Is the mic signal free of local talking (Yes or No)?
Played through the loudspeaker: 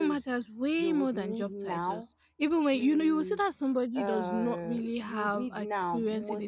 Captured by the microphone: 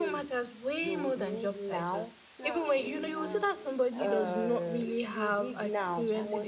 No